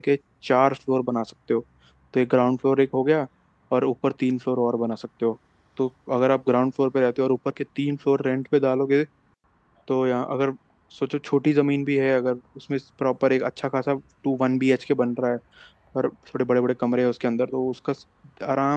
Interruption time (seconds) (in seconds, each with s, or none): none